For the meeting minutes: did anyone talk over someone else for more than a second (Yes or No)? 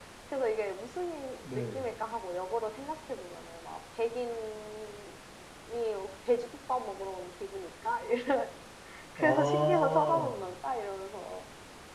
Yes